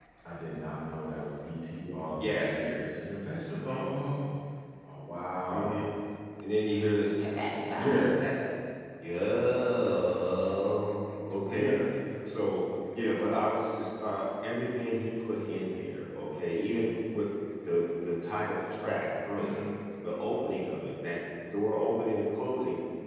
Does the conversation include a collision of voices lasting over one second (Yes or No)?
No